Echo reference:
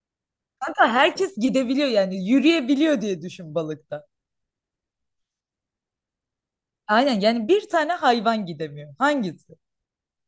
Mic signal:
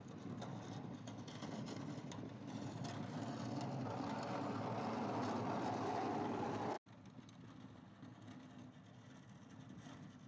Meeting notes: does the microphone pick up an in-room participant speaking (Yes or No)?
No